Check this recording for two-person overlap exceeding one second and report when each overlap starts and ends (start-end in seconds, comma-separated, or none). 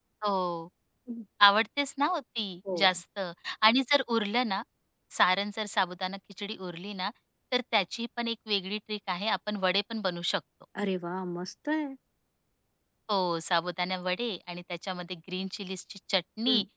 none